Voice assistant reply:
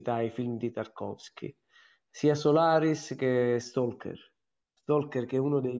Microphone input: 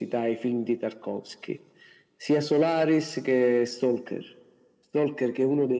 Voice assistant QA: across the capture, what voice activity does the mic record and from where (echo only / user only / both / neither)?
echo only